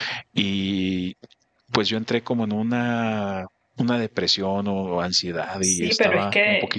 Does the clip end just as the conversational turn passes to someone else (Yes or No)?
Yes